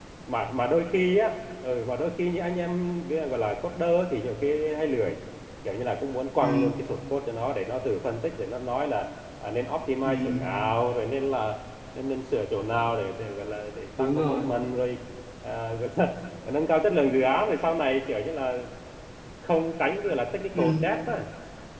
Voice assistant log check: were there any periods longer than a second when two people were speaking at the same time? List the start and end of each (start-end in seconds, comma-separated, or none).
none